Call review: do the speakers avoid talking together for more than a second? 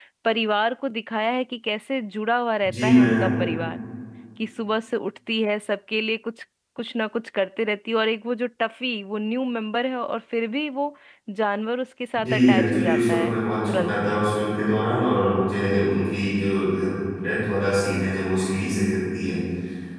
No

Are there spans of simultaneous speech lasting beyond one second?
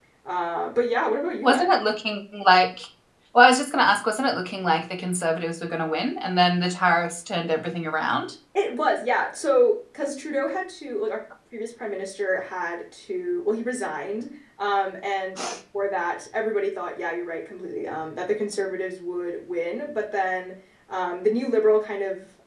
No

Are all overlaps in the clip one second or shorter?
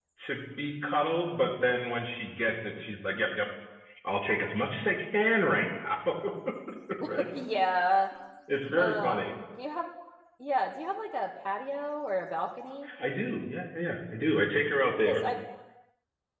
Yes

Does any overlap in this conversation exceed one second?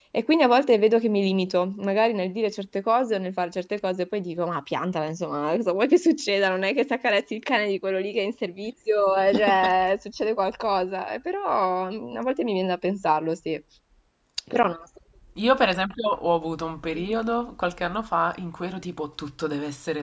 No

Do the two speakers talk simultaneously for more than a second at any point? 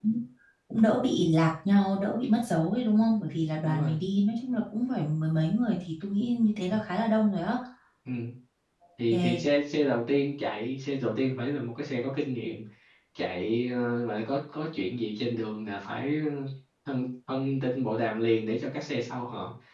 No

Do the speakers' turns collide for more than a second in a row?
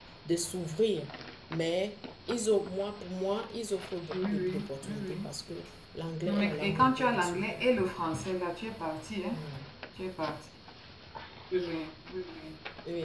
Yes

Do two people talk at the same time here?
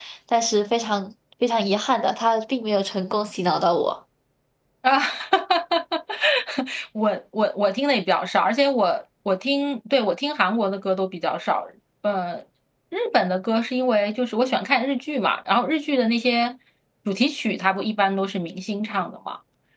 No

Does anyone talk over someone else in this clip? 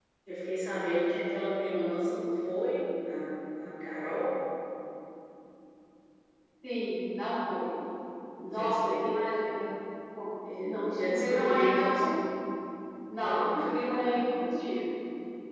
Yes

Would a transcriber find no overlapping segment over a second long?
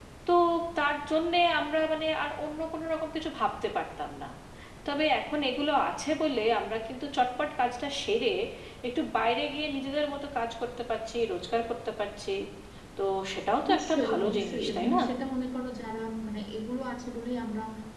No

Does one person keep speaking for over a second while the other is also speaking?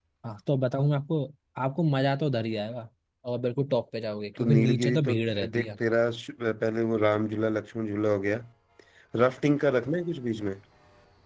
Yes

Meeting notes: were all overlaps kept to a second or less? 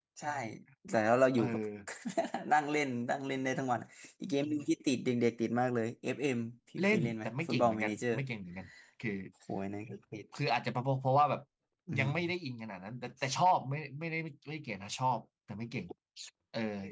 No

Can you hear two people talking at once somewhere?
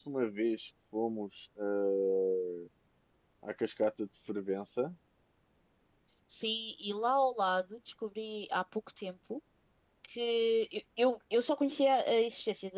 No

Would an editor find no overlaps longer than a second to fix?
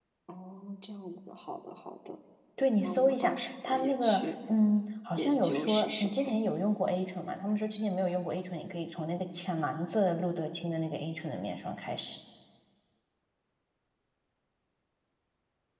No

